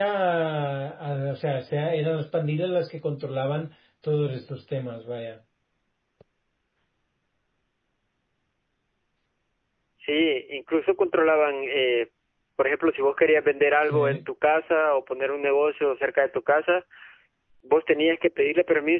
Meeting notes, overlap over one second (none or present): none